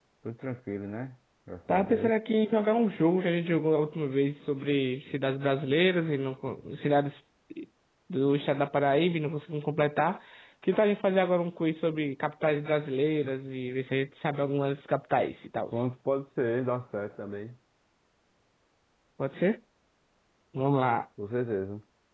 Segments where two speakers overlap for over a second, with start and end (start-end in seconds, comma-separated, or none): none